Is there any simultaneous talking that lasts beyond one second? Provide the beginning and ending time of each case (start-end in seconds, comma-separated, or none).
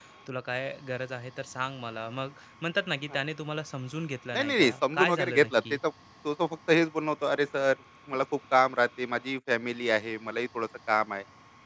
4.3-5.8